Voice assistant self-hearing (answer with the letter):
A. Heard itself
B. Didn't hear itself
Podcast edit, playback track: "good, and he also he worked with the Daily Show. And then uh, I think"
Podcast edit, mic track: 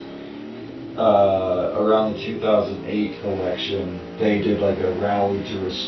B